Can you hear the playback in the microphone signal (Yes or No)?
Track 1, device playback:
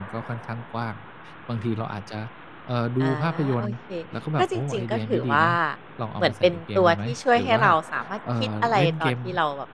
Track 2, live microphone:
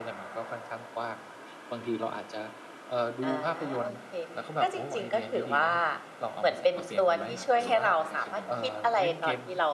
Yes